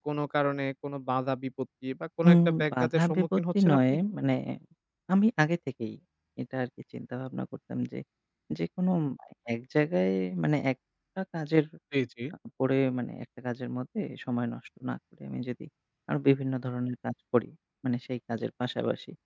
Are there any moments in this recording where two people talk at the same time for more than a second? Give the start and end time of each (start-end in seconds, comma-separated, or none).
2.3-4.0